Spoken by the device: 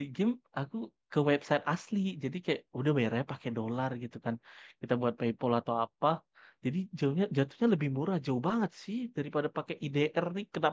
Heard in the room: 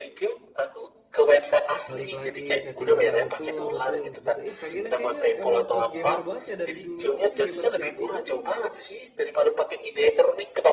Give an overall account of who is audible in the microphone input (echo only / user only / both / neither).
both